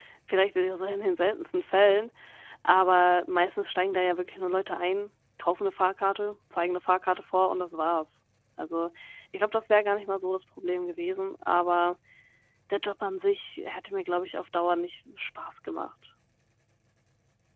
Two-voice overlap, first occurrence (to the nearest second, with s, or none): none